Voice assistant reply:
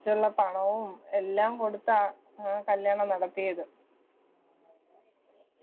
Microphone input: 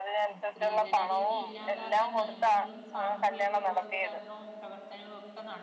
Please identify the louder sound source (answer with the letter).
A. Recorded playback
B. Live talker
A